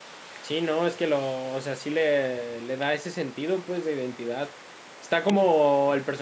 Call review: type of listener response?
listening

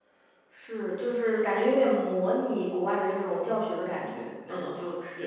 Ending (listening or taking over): taking over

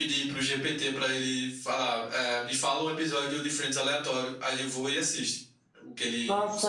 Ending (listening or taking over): taking over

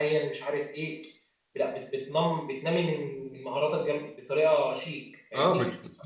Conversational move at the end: taking over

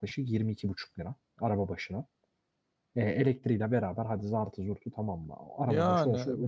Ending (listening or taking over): taking over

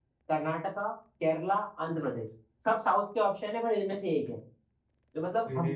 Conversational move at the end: listening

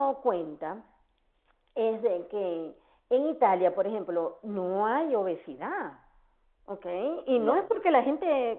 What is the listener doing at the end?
listening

